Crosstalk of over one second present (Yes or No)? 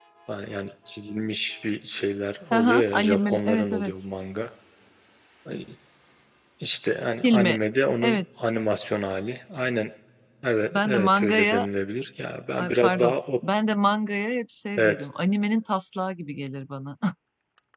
Yes